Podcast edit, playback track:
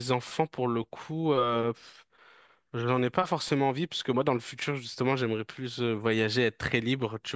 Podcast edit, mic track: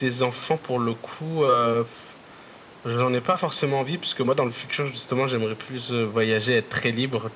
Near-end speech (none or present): none